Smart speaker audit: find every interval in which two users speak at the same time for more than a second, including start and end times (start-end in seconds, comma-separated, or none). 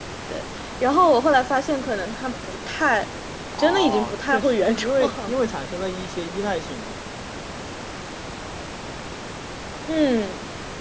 3.6-5.4